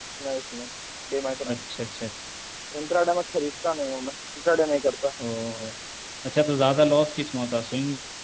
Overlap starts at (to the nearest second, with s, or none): none